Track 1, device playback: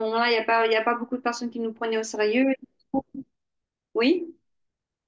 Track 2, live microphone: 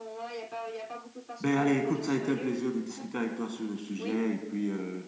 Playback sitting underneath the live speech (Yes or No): Yes